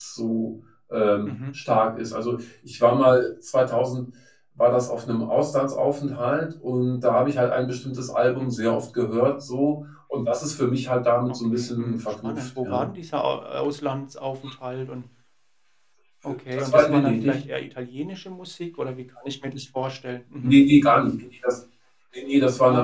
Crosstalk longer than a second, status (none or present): present